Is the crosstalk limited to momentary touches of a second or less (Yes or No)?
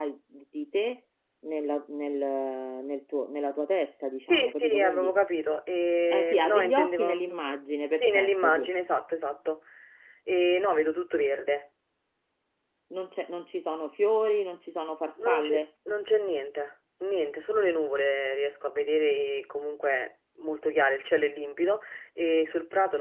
No